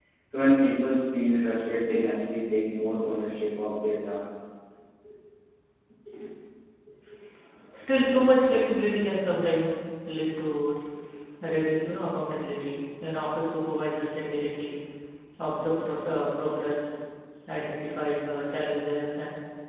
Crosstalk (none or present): none